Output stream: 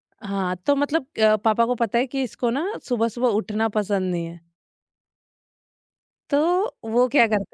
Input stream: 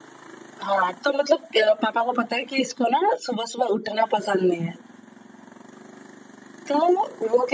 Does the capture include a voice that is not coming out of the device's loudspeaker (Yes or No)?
No